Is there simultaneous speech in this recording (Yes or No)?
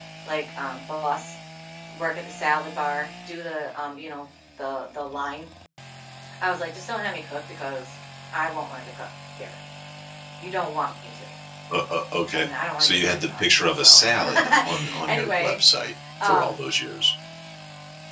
Yes